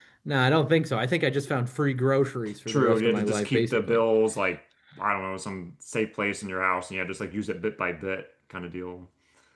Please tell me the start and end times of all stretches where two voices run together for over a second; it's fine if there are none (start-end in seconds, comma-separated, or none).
2.7-4.0